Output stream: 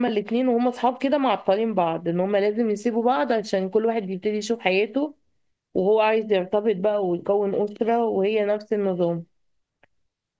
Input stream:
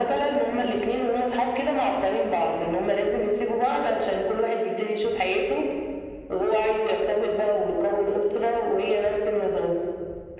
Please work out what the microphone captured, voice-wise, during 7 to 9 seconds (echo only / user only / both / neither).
echo only